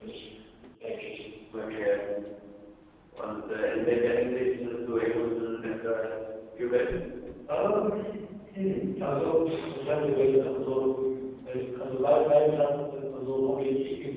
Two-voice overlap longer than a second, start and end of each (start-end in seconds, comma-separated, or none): none